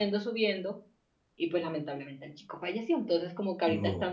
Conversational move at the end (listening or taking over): listening